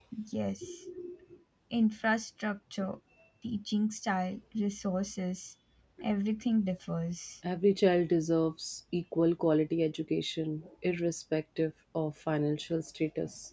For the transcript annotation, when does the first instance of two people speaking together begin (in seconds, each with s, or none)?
none